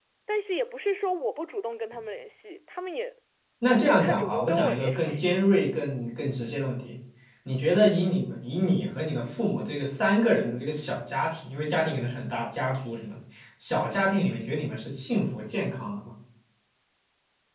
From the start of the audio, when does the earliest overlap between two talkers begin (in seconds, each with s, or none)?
3.9 s